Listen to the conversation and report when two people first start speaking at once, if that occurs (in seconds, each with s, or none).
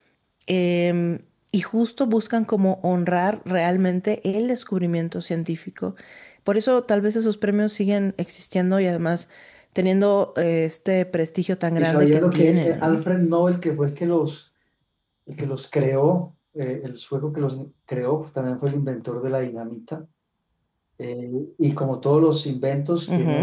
11.8 s